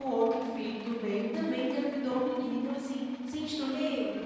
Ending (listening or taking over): taking over